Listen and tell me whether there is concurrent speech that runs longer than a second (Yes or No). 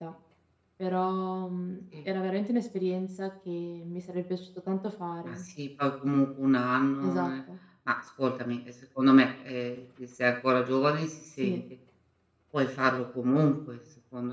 No